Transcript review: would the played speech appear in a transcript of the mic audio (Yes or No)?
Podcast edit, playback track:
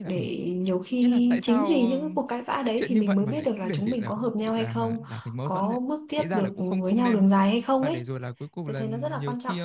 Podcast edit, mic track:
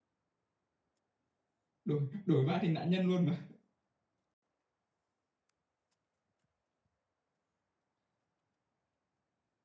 No